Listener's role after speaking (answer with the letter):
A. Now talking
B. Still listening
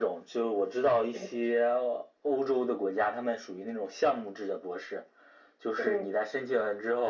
B